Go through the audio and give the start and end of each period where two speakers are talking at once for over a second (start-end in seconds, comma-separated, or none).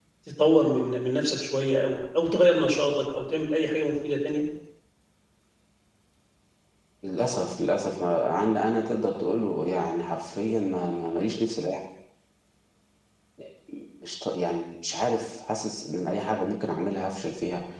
none